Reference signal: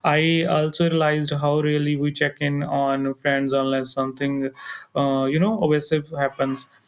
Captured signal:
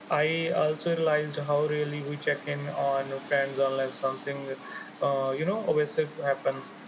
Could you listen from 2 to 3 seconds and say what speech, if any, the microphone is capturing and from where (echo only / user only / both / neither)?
echo only